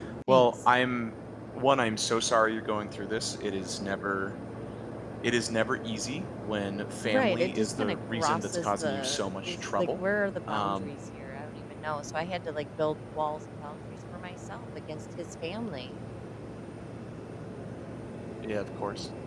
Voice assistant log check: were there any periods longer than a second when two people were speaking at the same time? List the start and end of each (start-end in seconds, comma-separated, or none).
7.0-10.0